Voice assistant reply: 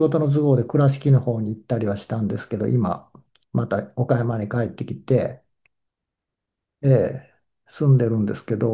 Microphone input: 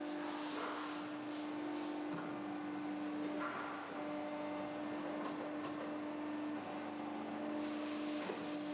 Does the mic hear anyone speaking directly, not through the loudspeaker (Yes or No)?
No